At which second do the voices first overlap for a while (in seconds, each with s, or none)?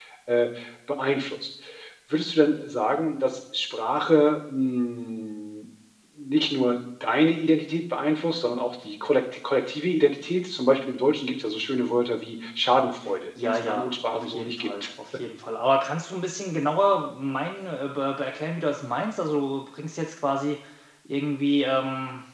13.4 s